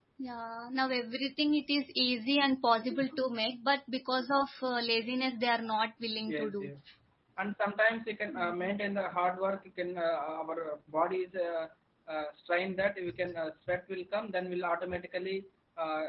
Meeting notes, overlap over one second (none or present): none